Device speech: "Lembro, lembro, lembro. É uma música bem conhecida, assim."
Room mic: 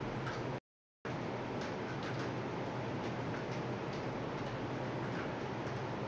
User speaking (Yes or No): No